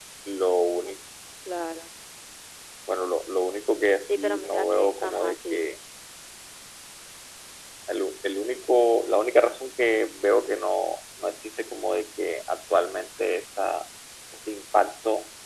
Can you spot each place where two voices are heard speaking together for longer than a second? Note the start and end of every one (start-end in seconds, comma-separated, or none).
4.1-5.6